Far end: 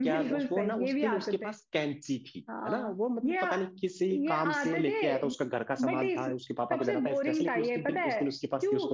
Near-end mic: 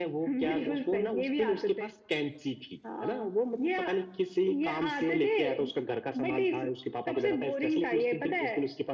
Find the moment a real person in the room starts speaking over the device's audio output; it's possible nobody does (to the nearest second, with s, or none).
none